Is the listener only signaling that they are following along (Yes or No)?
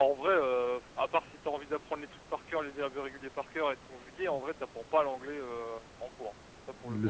No